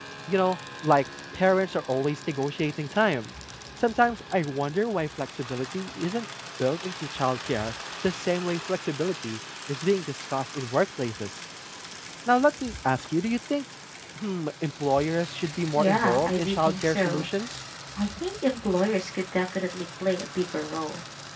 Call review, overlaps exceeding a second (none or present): present